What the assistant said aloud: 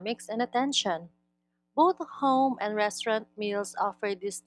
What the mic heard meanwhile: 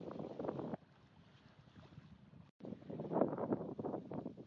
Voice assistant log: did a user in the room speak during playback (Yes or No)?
No